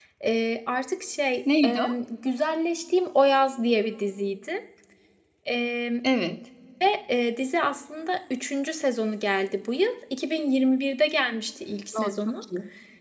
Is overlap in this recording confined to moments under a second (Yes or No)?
Yes